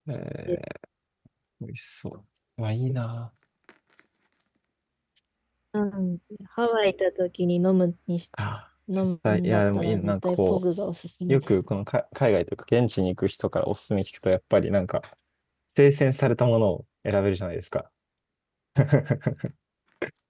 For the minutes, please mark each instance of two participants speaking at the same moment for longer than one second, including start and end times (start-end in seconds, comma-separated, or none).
9.3-10.6